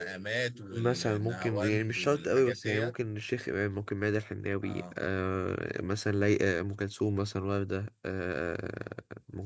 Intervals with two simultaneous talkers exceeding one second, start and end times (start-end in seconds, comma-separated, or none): 0.7-2.9